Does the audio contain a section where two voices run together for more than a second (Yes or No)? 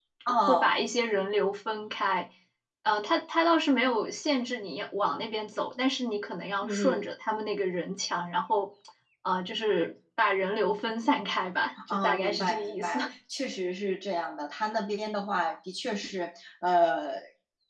Yes